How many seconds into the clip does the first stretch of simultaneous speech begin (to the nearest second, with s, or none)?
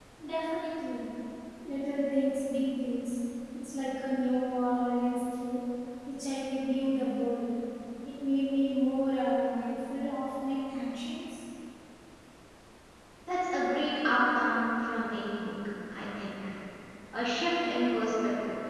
none